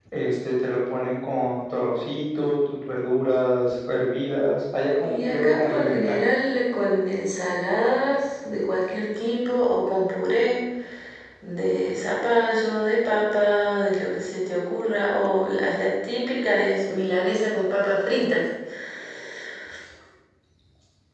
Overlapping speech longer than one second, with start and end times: 5.0-6.2

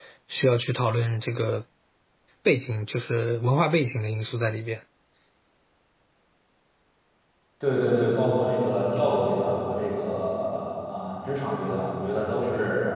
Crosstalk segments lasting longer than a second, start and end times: none

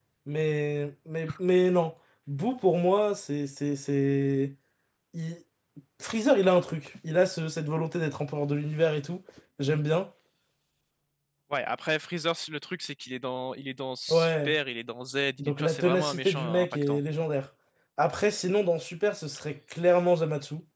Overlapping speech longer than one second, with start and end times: 15.4-17.0

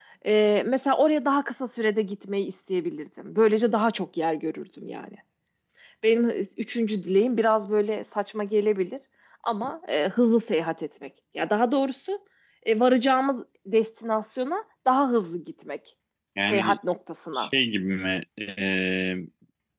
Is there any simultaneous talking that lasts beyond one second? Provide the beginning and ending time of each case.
none

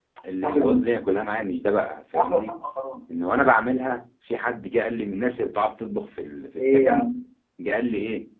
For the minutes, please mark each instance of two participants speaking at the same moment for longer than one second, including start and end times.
none

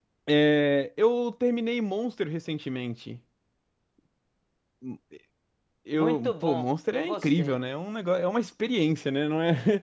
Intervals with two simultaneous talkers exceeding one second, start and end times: 5.9-7.6

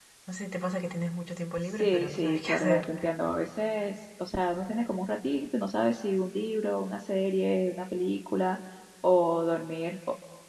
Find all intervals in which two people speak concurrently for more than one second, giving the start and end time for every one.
1.6-2.8

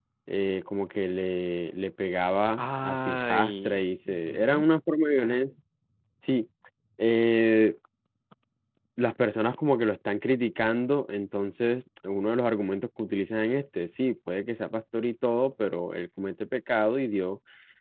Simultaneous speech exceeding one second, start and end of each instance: 2.6-4.6

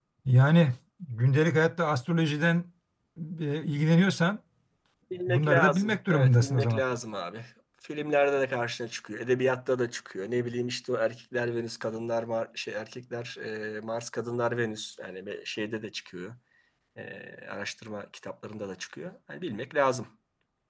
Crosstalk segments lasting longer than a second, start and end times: 5.3-6.8

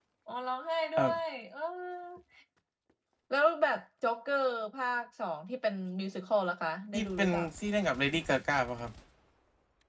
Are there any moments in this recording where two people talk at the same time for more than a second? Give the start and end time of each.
none

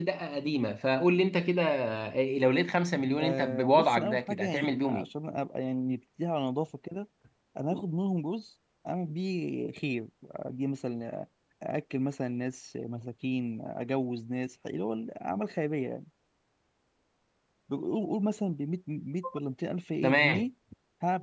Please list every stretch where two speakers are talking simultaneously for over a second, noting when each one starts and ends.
3.2-5.1

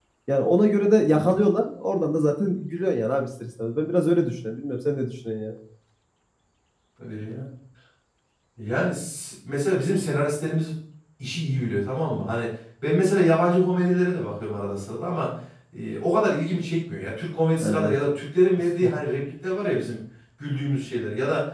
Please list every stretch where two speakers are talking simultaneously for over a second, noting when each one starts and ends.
none

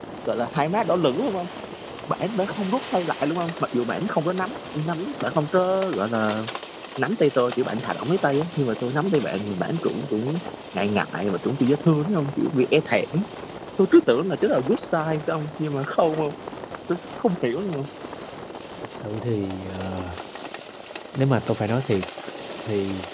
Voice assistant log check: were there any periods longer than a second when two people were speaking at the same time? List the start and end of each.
none

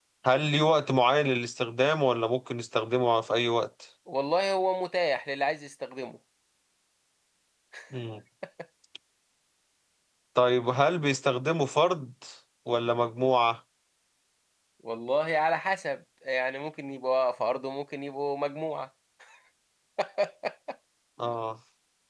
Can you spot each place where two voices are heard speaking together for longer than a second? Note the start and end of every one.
none

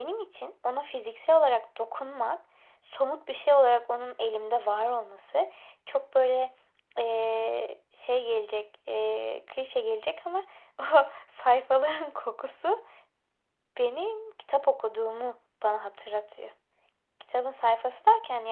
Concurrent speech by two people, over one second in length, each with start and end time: none

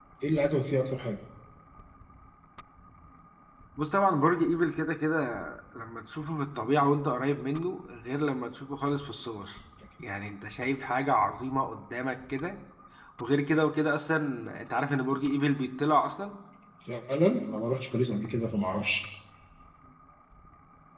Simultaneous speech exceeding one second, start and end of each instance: none

